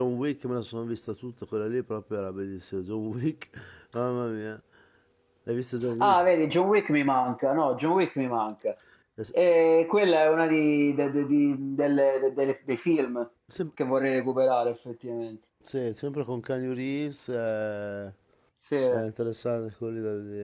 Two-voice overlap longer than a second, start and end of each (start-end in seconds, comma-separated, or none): none